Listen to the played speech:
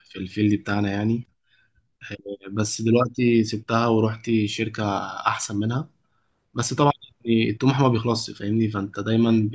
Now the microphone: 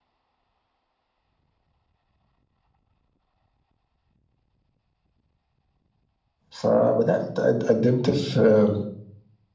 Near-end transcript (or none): فبدات قد- قدمت في